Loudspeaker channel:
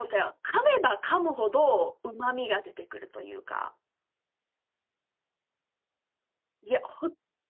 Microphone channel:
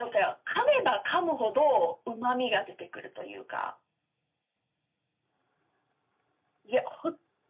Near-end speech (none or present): none